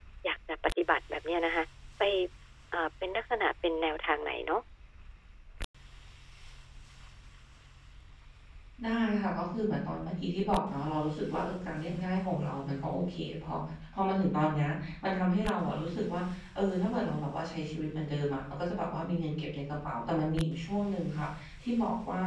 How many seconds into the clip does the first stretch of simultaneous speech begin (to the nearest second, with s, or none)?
none